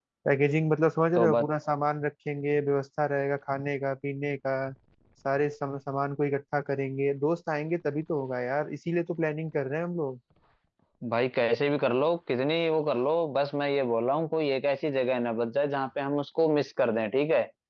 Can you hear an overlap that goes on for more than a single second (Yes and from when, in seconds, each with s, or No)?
No